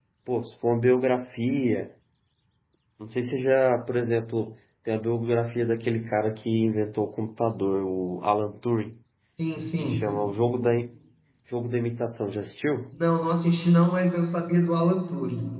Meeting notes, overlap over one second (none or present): none